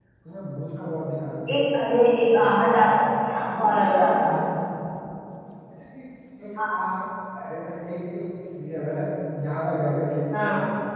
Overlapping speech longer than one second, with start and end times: 2.2-4.3

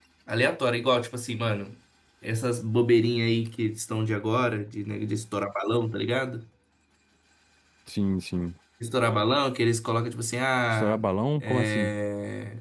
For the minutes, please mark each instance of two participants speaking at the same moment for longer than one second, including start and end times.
none

